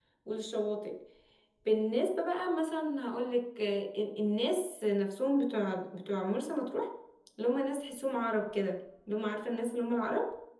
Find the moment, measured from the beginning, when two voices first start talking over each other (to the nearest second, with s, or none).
none